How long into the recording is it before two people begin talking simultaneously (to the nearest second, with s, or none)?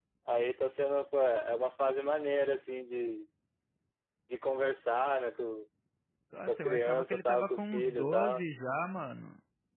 6 s